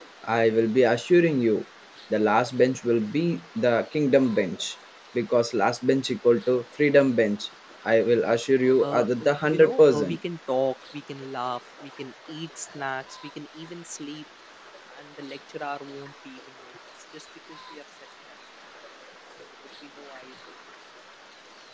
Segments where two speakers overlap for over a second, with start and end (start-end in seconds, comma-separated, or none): 8.8-10.2